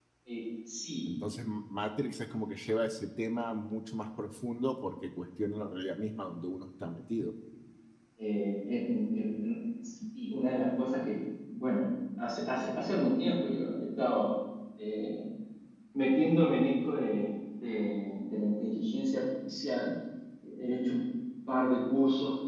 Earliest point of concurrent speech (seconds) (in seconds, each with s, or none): none